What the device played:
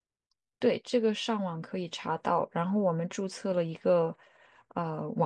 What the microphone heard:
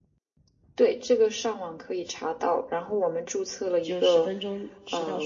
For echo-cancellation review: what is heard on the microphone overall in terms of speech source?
both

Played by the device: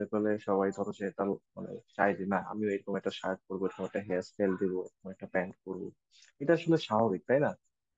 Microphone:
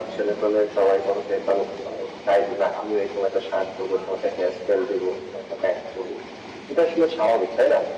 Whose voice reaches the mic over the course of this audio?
echo only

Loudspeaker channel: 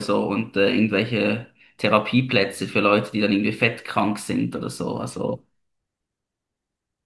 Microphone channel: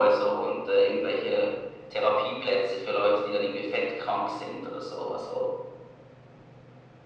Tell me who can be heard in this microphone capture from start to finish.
echo only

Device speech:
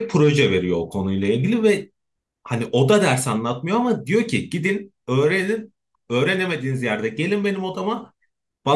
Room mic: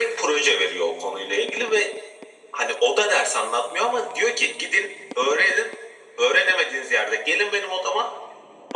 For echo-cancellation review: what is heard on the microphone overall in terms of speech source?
echo only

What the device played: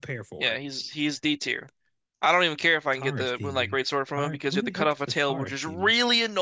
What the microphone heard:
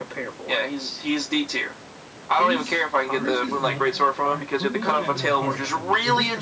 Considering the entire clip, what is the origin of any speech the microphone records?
both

